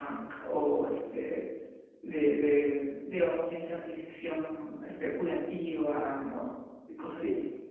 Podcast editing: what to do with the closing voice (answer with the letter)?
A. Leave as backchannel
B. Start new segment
B